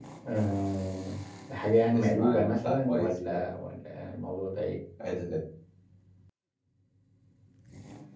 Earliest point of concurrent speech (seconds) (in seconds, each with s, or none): 1.9 s